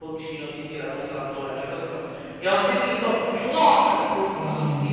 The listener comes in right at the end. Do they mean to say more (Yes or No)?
No